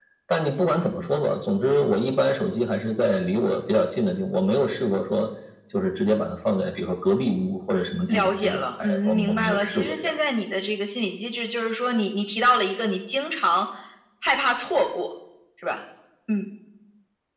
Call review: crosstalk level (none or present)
present